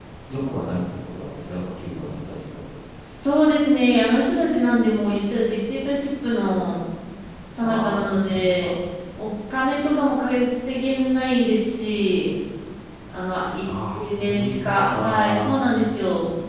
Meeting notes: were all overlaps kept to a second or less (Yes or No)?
No